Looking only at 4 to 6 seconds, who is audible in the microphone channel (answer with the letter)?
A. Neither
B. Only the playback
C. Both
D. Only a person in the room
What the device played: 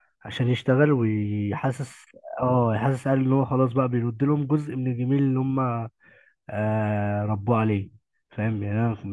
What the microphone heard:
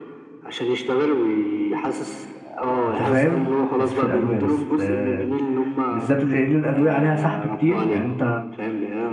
C